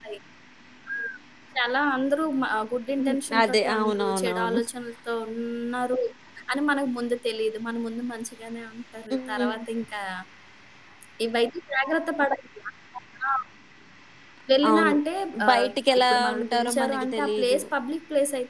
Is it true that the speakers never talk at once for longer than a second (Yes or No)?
No